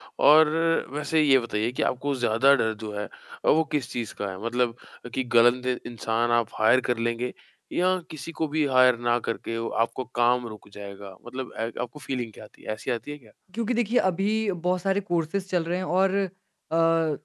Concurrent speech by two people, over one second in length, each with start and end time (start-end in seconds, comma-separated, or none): none